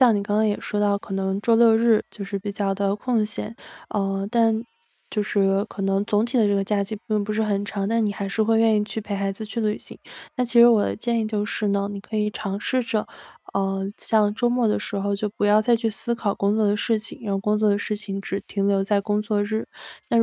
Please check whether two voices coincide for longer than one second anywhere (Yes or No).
No